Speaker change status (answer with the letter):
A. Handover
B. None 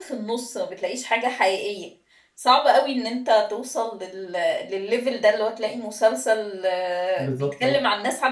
B